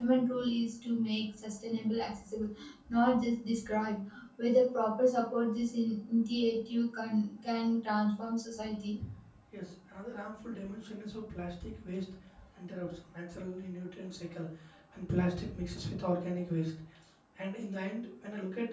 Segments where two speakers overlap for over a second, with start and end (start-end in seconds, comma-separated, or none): none